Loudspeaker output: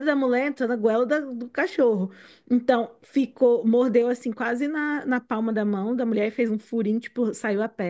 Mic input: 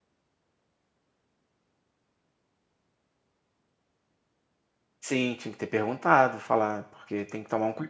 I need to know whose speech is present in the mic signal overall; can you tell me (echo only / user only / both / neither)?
user only